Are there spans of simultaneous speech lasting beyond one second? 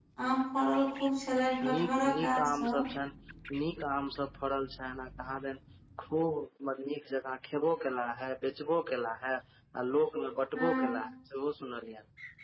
Yes, from 1.6 s

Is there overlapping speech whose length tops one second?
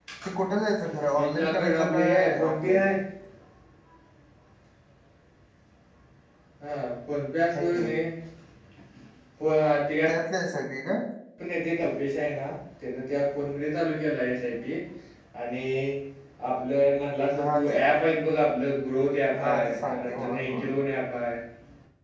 Yes, from 1.1 s

